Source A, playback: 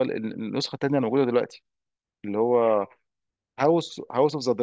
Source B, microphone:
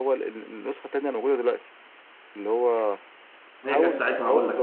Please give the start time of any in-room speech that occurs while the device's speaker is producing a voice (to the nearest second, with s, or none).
4 s